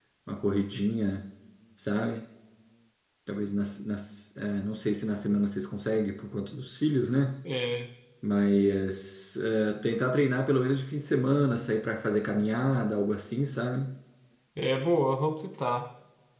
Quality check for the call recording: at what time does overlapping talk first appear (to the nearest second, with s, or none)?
none